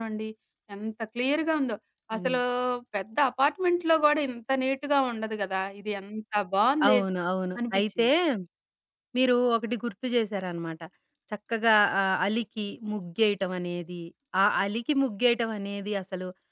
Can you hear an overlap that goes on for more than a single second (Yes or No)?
No